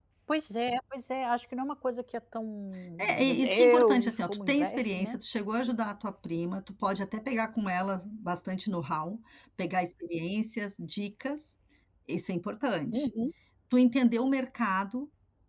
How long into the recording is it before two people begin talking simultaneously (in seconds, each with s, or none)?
3.0 s